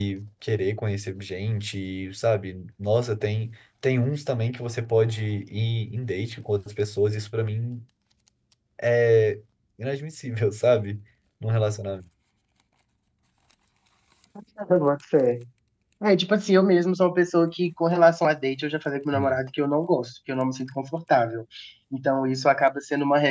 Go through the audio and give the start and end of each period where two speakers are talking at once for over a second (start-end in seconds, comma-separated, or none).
none